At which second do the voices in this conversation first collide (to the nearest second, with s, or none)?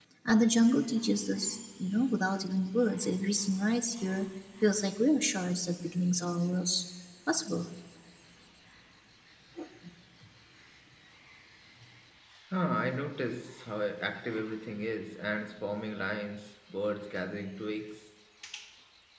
none